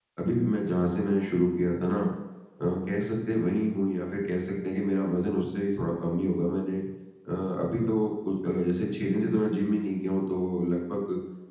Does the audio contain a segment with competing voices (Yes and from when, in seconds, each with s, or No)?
No